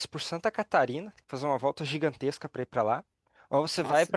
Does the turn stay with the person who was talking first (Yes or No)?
Yes